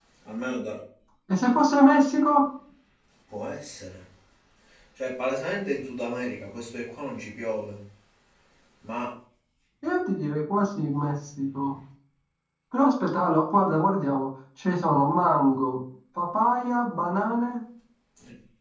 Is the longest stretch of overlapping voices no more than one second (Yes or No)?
Yes